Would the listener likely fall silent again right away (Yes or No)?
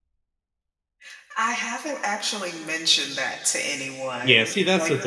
No